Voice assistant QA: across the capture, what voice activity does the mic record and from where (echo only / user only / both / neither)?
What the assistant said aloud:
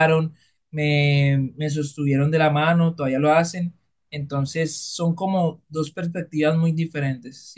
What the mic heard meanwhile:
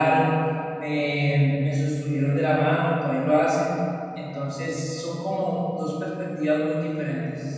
echo only